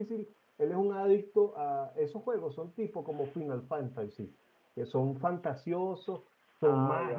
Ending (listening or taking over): listening